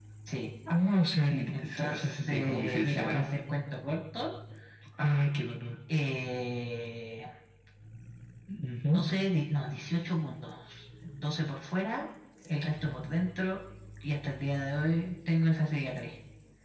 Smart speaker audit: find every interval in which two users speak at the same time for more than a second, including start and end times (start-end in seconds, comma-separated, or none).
1.5-3.2